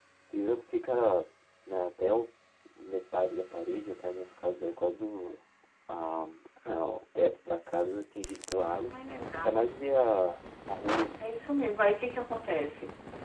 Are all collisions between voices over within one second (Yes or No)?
Yes